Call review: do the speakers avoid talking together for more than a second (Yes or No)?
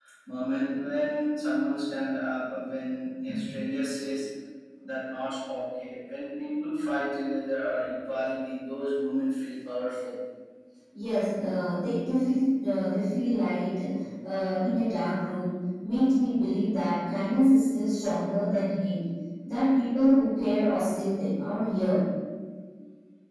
Yes